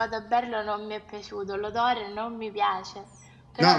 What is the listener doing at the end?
taking over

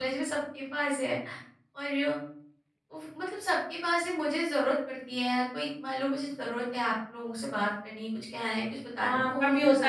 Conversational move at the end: taking over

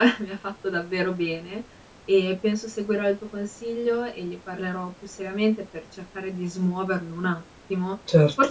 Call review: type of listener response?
listening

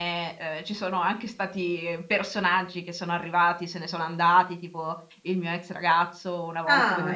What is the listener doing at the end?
taking over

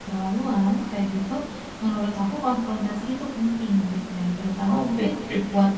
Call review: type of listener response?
listening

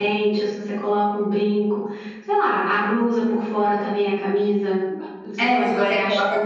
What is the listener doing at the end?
taking over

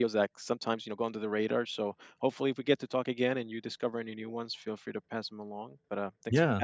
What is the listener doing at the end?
taking over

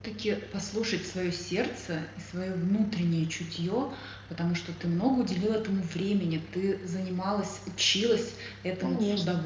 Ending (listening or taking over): listening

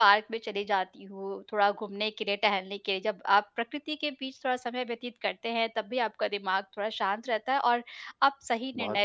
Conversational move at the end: listening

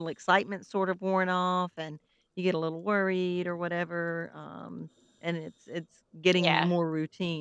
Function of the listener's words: listening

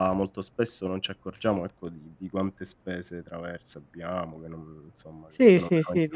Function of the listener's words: taking over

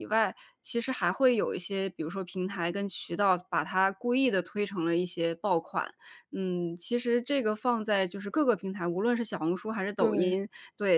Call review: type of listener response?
listening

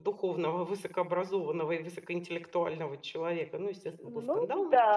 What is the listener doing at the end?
taking over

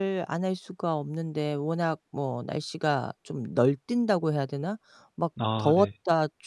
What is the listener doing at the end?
listening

